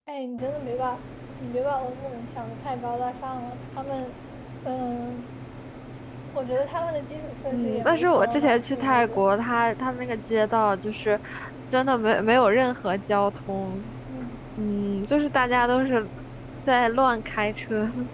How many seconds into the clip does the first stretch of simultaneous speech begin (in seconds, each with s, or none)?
7.5 s